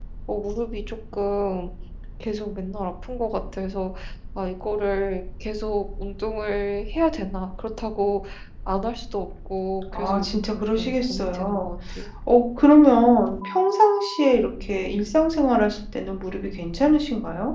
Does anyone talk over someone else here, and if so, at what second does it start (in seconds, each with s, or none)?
9.9 s